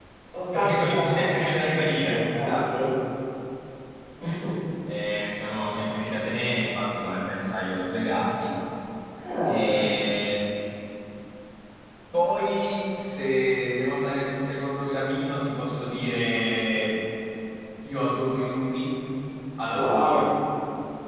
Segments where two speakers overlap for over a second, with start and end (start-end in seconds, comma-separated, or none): 0.5-2.8